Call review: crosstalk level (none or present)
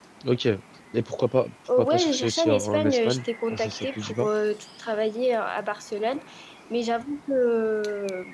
present